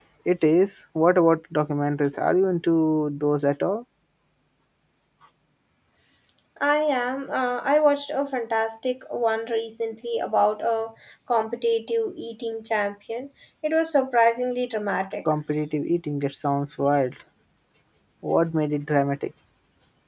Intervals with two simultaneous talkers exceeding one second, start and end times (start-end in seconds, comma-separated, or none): none